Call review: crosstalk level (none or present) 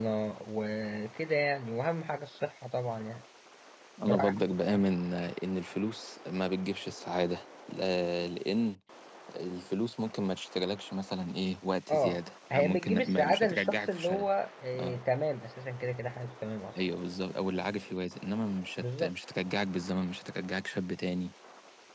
present